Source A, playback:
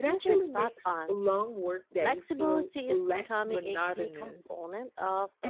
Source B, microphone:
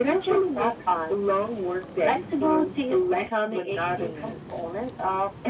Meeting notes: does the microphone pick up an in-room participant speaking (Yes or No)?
No